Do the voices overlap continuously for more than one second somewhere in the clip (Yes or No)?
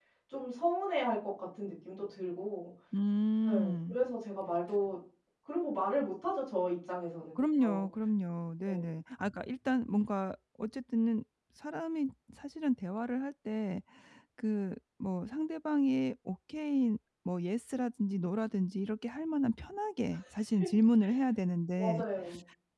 No